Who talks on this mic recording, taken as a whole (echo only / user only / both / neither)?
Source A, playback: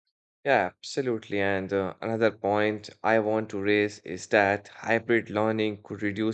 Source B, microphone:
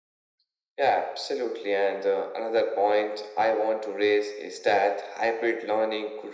echo only